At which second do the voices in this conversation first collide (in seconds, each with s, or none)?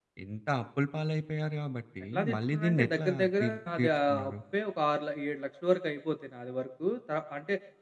2.1 s